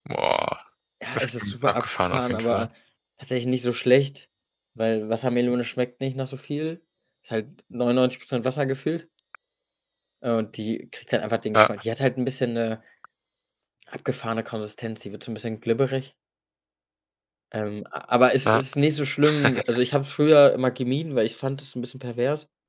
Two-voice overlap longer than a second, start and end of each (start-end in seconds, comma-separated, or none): 1.1-2.7